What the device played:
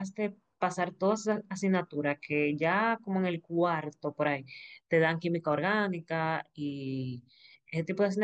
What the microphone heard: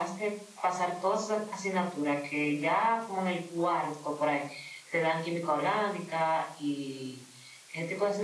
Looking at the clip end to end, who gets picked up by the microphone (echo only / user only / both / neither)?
echo only